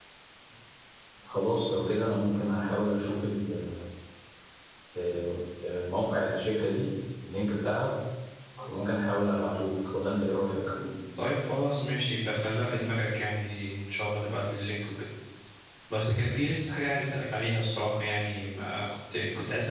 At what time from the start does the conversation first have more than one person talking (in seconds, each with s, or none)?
none